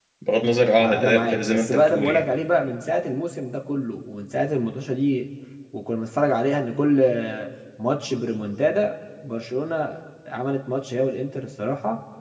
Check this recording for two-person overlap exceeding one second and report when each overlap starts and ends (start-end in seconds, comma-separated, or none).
0.8-2.3